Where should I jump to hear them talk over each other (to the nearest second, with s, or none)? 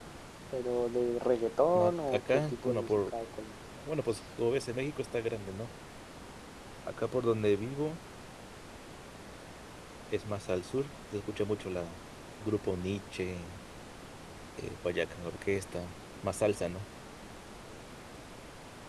2 s